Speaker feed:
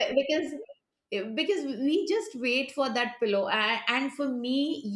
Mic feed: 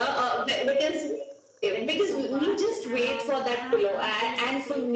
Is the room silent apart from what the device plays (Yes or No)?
No